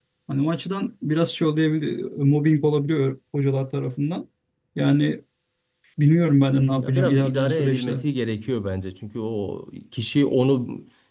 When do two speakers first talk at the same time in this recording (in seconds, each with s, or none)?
6.8 s